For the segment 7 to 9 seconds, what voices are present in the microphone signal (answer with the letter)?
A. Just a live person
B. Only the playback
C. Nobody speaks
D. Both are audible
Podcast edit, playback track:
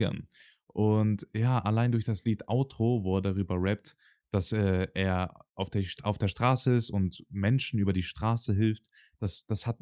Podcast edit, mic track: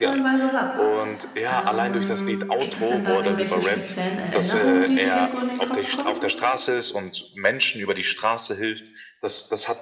B